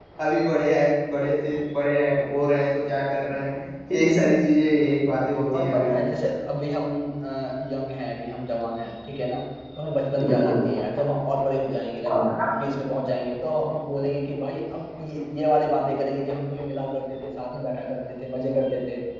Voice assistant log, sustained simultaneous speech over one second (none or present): none